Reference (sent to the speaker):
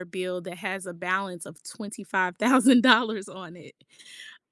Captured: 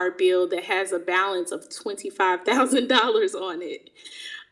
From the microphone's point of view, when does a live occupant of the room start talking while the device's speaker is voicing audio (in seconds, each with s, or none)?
none